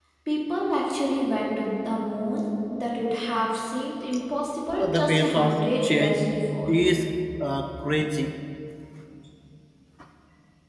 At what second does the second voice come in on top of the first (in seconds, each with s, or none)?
4.8 s